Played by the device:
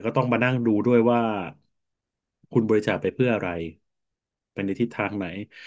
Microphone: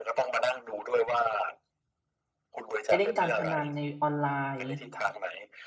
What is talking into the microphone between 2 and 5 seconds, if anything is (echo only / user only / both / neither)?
both